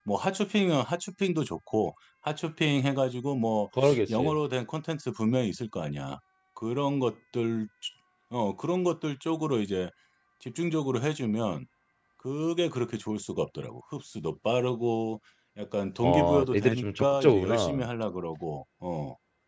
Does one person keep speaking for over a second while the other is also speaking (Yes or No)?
Yes